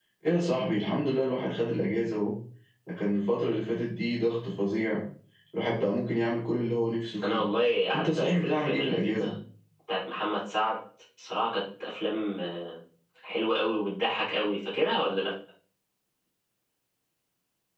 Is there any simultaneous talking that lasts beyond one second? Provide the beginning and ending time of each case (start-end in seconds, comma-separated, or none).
7.9-9.3